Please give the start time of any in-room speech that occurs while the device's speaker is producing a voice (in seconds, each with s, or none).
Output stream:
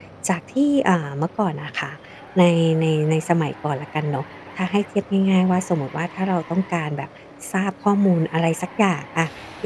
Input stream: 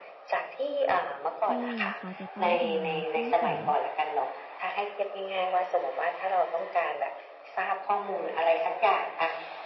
1.5 s